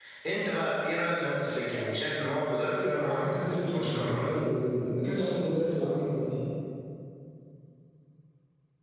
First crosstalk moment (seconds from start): 3 s

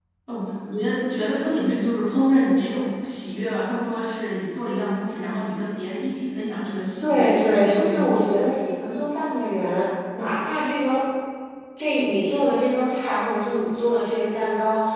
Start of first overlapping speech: 7 s

